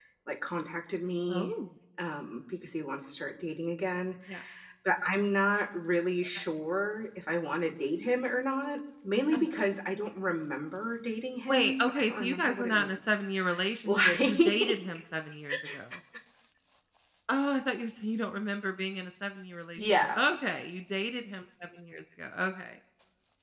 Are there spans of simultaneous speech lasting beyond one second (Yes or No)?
Yes